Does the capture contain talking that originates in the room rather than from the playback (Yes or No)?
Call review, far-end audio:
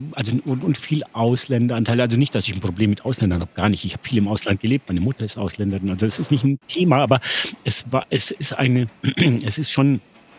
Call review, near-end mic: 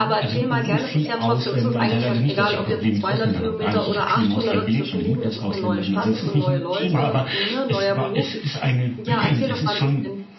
Yes